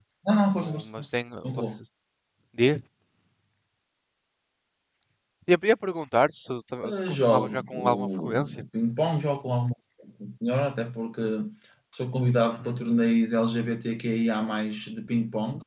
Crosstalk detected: Yes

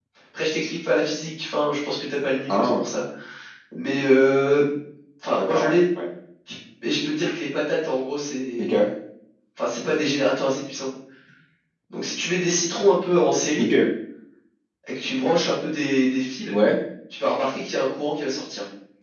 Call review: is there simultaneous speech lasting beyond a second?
No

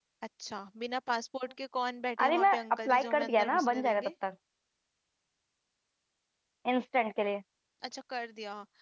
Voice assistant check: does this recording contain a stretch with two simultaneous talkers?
Yes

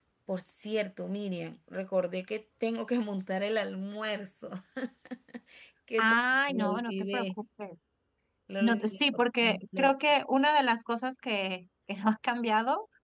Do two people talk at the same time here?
Yes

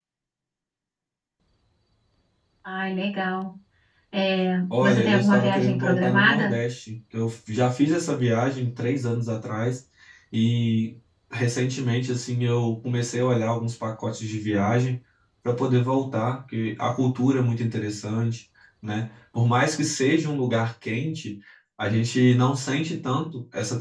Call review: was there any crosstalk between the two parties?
Yes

